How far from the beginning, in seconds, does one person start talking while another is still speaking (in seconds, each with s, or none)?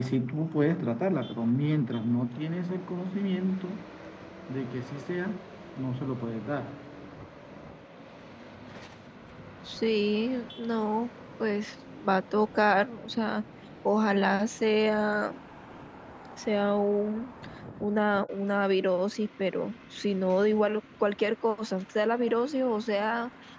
none